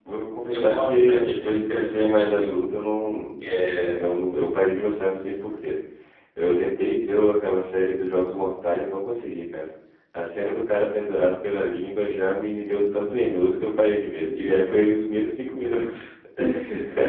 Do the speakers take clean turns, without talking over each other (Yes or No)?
No